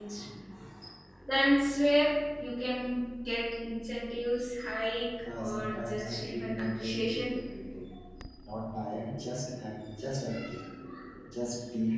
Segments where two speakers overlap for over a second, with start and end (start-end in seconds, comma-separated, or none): 5.4-7.3